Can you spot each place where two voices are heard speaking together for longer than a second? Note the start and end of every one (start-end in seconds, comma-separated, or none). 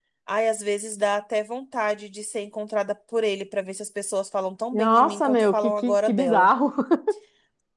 4.7-6.5